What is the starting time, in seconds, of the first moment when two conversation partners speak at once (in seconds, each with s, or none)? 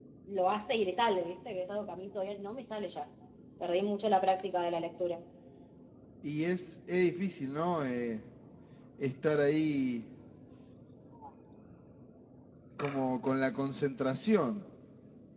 none